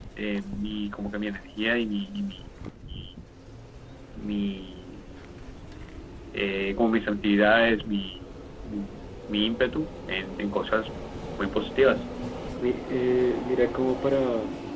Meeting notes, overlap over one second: none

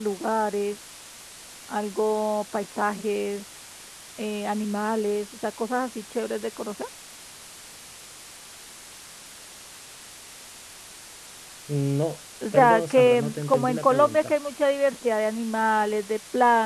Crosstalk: present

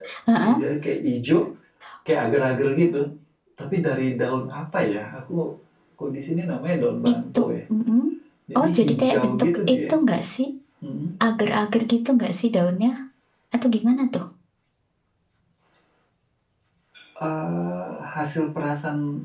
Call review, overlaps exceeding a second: present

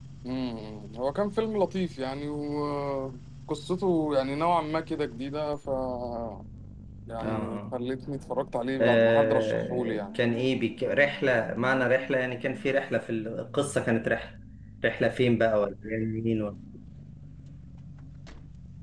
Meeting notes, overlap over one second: present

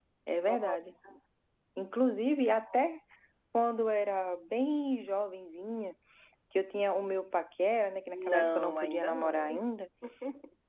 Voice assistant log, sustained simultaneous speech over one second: present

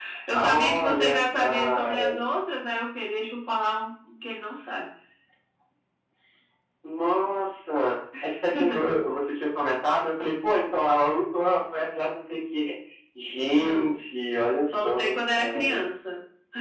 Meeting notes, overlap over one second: present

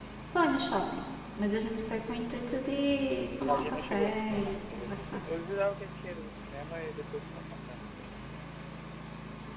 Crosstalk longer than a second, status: present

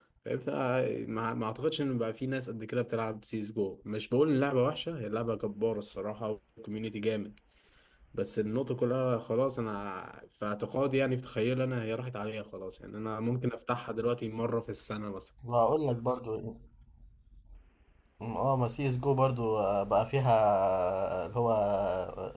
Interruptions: none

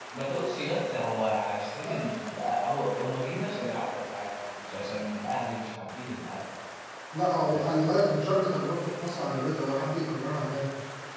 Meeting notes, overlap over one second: none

